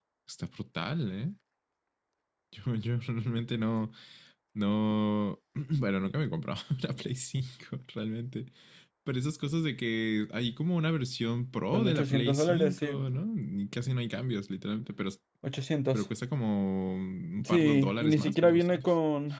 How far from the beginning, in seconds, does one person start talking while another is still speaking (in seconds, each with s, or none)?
11.7 s